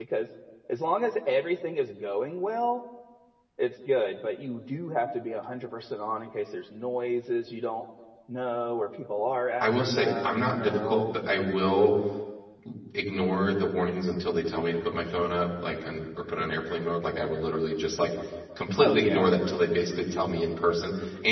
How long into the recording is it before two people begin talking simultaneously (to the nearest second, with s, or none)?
10 s